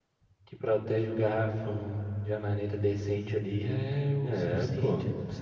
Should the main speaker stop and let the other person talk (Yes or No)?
Yes